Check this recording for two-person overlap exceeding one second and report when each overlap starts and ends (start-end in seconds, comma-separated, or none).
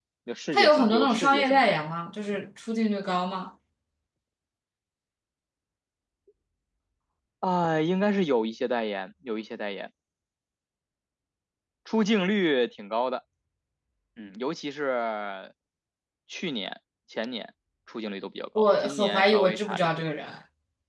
0.5-1.8, 18.6-19.9